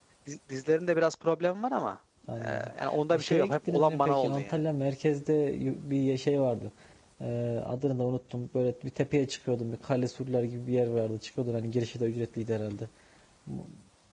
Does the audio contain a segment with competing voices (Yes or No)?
Yes